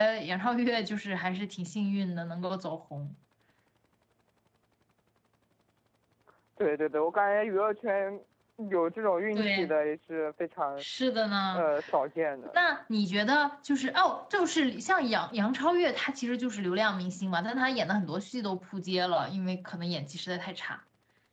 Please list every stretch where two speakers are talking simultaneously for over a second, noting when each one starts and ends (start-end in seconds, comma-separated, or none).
none